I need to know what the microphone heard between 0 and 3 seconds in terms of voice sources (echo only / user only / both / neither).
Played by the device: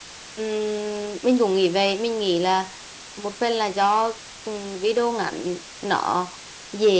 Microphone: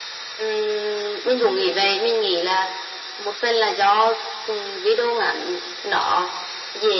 echo only